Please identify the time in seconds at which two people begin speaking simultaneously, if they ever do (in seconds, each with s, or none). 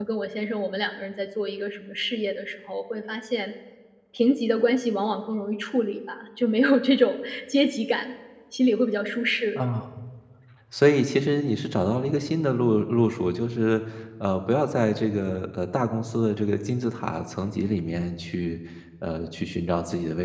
none